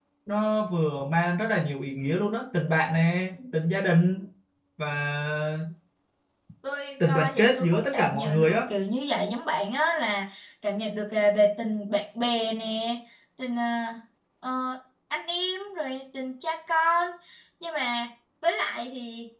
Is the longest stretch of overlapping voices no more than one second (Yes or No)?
No